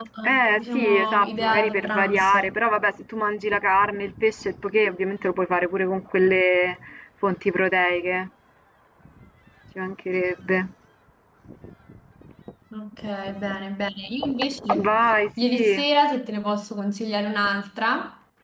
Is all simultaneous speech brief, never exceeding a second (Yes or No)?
No